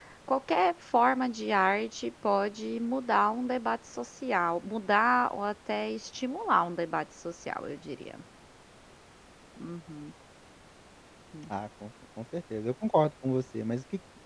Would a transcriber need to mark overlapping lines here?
No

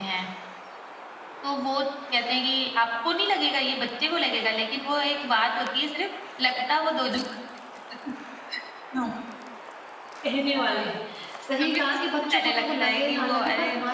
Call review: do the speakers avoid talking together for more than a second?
No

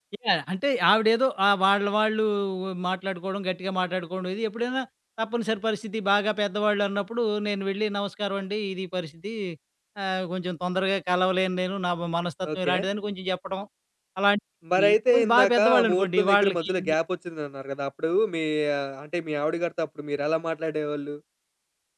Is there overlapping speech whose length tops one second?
Yes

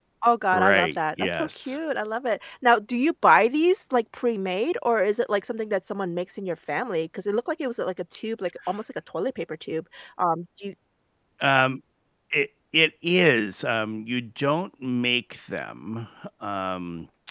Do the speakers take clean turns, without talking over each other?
No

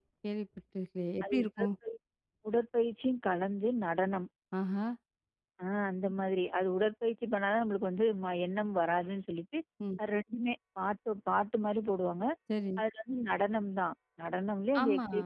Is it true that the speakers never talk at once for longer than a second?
Yes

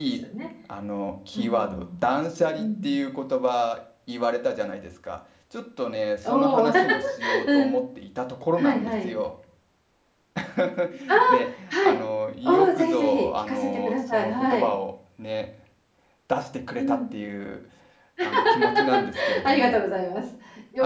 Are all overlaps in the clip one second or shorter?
No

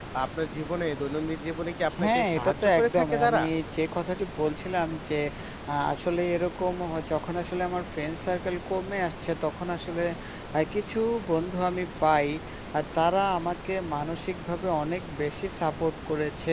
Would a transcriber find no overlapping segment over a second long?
No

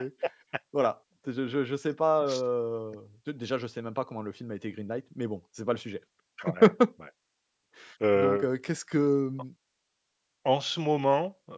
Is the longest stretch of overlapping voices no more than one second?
Yes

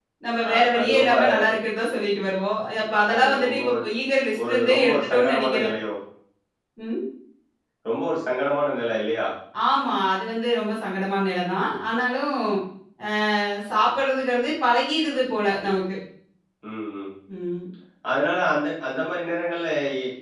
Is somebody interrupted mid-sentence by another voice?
Yes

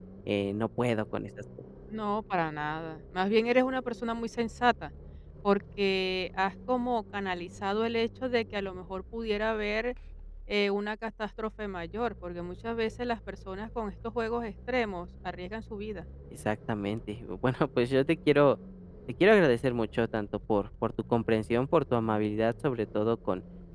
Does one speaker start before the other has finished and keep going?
No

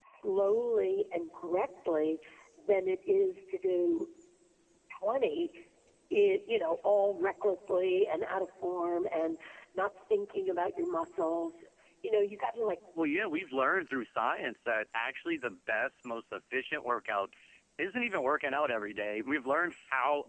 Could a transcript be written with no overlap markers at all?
Yes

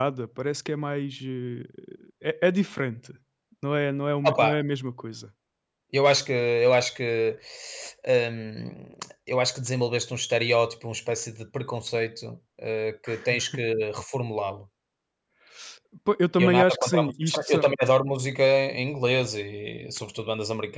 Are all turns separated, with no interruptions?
No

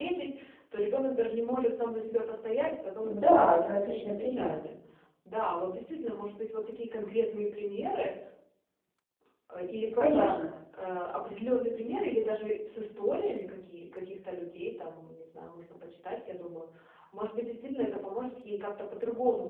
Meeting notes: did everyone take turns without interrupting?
No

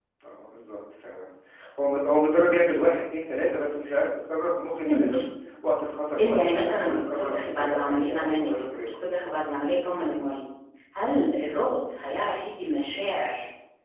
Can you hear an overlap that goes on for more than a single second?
Yes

